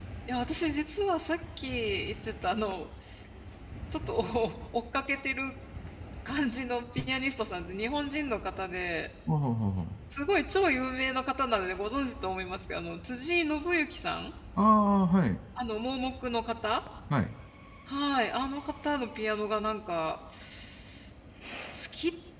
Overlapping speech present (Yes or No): No